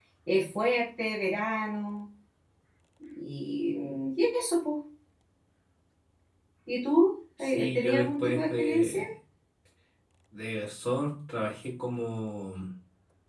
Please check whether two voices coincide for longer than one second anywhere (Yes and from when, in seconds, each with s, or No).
Yes, from 7.4 s